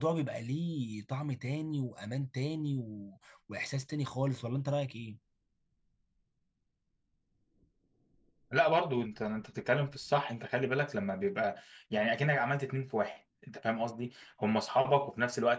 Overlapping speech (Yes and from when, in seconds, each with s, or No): No